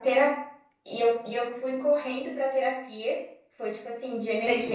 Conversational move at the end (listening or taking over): taking over